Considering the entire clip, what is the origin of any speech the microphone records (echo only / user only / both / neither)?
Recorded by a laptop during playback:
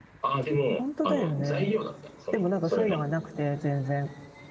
both